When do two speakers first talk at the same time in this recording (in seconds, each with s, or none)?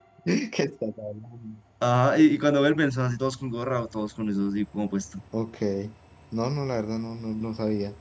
none